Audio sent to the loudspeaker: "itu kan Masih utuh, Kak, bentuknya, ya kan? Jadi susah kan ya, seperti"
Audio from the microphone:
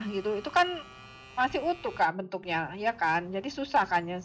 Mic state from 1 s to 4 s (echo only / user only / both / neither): echo only